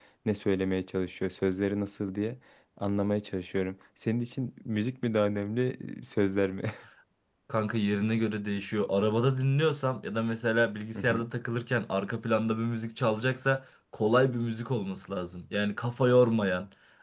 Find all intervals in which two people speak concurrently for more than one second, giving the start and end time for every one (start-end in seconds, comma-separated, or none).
none